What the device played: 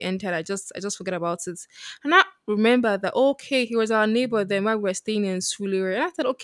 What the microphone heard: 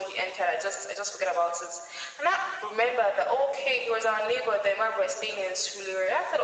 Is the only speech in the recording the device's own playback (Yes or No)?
Yes